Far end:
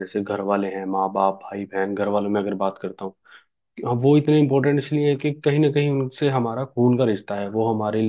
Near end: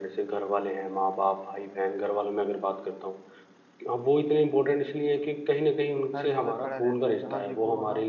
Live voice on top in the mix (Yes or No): No